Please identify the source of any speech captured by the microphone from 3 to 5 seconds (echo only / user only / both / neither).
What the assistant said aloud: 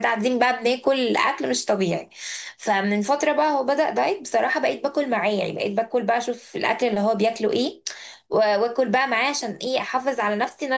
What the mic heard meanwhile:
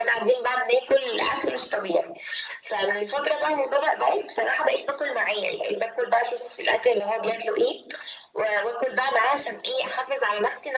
echo only